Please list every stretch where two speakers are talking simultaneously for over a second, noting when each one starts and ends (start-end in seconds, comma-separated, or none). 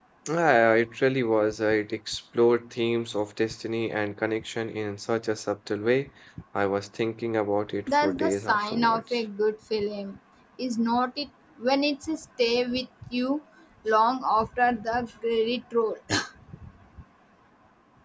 7.9-9.2